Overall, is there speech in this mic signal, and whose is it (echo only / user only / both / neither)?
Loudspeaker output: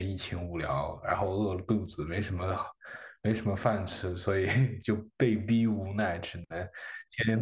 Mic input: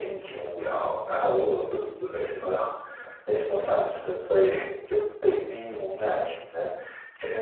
echo only